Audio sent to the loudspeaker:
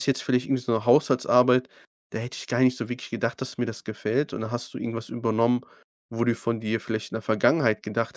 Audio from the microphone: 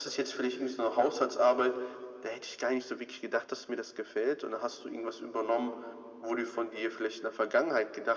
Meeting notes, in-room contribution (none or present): none